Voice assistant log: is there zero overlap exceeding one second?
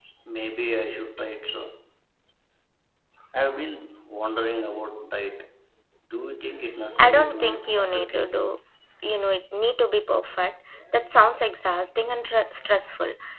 No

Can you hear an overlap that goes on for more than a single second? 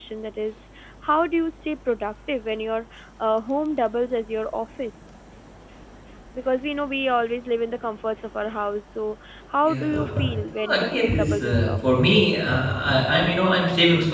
Yes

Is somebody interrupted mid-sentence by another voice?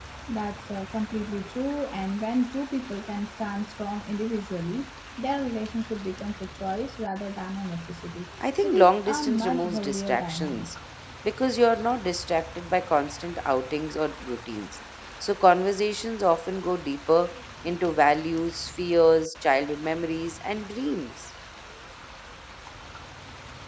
Yes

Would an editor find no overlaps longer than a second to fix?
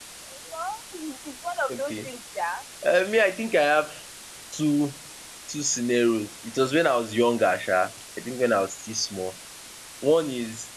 Yes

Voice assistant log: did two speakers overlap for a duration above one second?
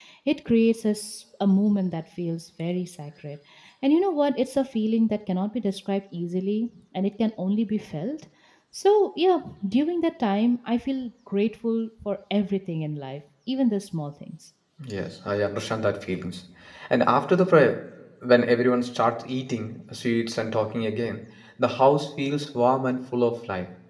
No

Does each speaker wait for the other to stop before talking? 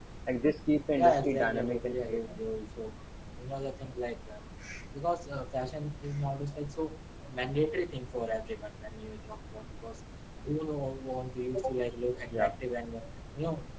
No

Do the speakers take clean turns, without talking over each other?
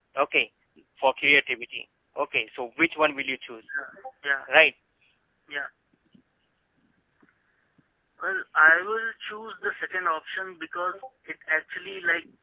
Yes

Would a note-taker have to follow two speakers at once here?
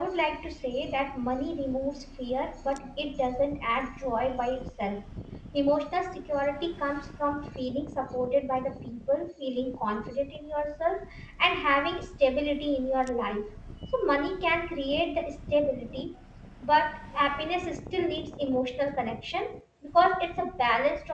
No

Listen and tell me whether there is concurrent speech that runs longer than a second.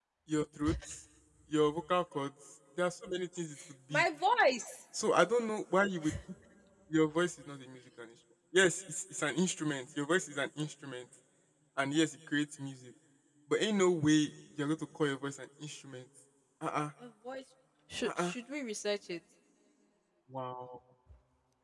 No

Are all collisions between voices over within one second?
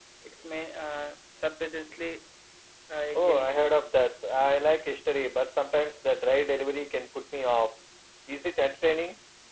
Yes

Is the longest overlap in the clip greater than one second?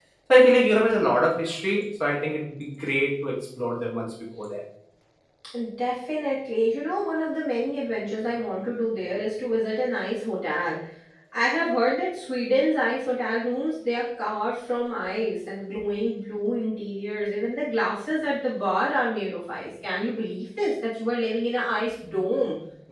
No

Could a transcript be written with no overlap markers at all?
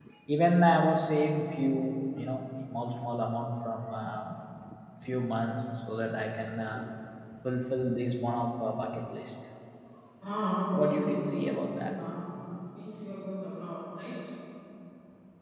No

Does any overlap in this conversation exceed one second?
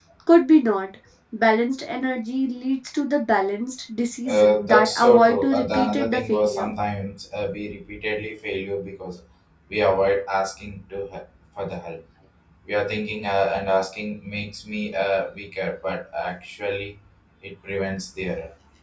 Yes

